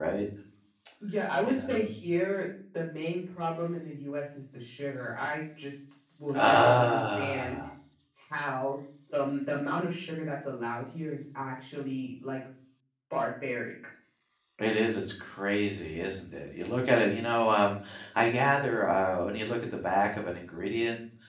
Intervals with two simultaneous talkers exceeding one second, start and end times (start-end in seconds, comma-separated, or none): 6.4-7.7